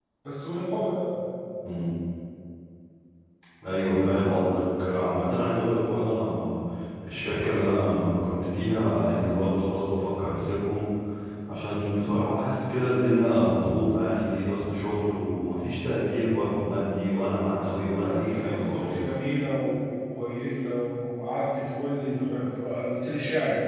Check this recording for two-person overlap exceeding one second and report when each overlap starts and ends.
17.6-18.9

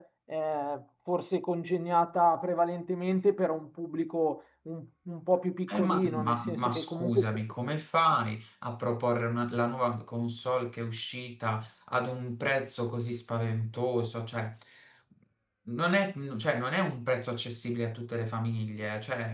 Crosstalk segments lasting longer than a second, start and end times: 5.7-7.2

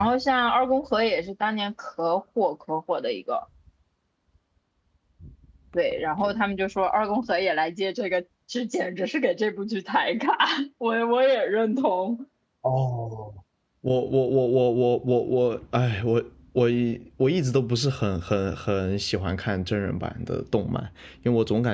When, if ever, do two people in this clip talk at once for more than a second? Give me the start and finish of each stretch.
none

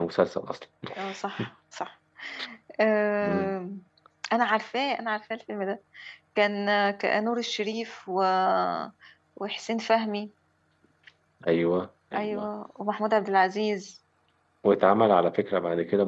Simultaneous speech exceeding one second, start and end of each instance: none

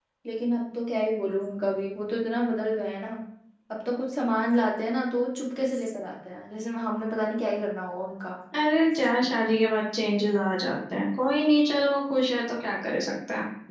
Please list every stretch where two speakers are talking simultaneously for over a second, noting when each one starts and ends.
none

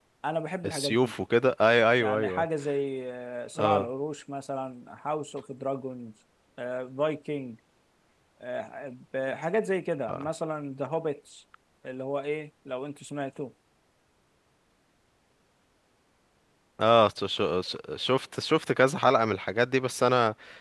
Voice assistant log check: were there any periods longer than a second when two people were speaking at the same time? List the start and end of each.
none

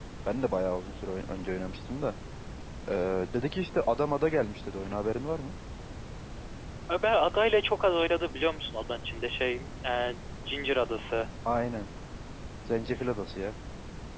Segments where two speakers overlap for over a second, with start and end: none

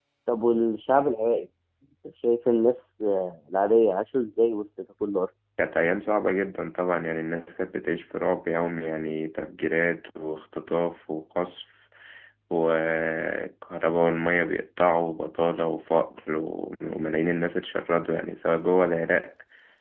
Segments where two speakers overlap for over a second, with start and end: none

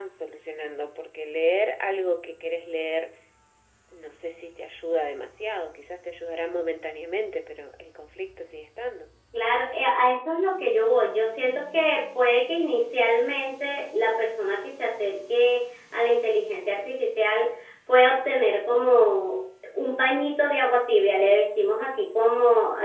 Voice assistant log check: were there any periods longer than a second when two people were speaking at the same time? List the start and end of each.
none

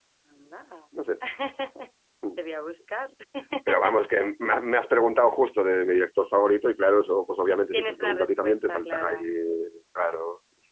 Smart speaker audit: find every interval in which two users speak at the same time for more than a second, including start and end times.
7.7-9.2

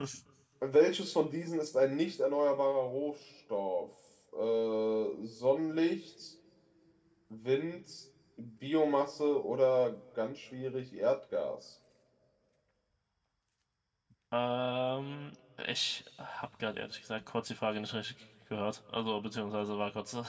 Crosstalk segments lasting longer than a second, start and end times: none

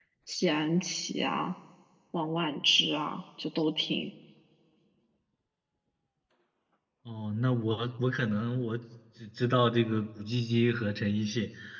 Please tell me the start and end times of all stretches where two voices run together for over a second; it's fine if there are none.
none

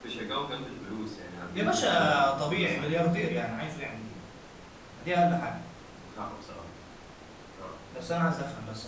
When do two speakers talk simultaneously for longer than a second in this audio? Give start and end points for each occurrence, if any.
1.5-3.0

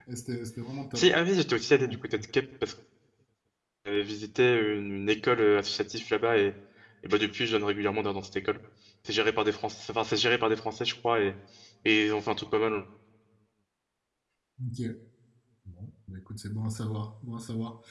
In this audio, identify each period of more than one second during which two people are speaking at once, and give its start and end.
none

